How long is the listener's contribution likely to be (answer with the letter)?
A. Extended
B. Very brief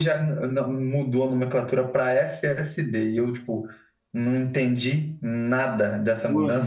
B